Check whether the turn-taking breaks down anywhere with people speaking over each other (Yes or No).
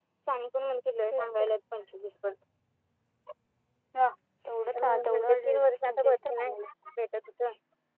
Yes